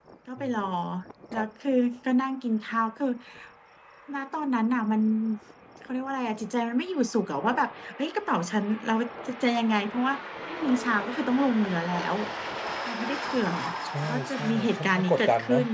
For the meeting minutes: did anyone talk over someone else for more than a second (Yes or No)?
Yes